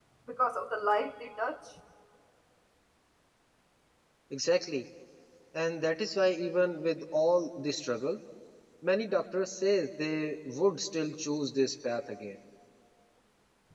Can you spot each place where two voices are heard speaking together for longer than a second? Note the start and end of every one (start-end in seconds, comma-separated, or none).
none